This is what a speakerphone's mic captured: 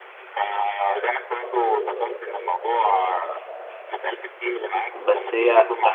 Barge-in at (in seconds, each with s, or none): 4.9 s